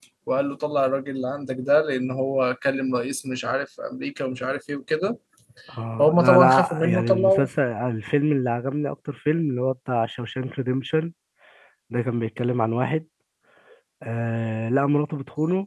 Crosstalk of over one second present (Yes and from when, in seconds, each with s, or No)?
Yes, from 6.0 s